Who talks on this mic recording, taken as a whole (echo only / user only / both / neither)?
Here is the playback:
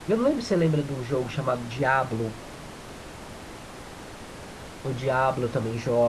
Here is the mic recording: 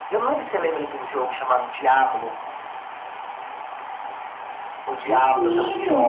both